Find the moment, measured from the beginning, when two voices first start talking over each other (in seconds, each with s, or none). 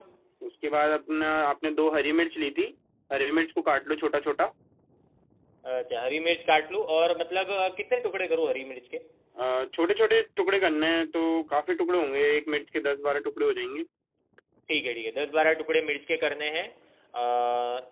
none